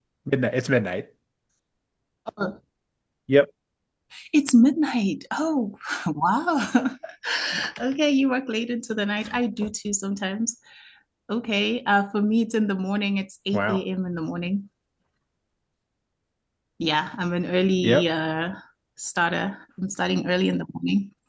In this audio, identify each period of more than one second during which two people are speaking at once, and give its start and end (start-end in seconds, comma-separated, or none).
none